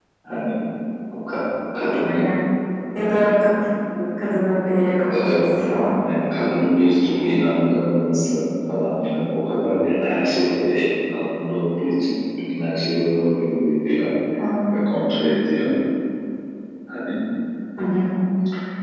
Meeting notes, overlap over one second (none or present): none